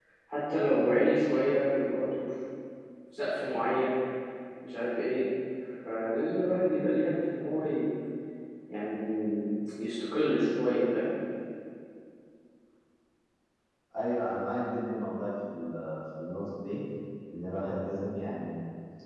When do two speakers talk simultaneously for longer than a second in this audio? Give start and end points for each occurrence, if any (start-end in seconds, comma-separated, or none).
none